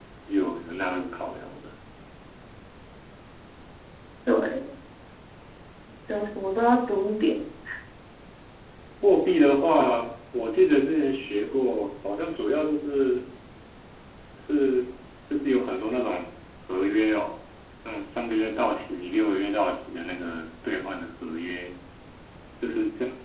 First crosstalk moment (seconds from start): none

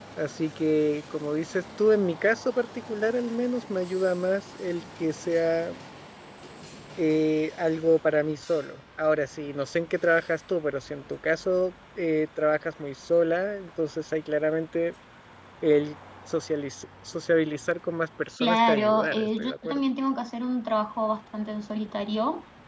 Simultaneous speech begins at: 18.4 s

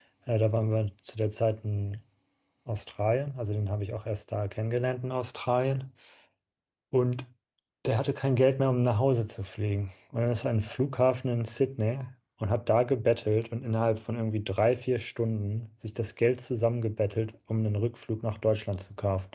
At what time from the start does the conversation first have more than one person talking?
none

